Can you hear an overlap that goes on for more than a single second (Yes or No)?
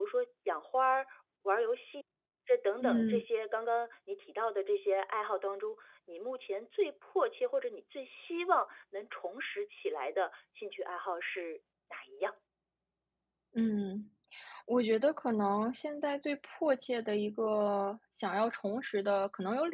No